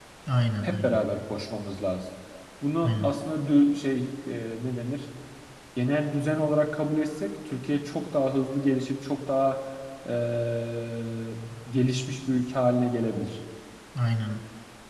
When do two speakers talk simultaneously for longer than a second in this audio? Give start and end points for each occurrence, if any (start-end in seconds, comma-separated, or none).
none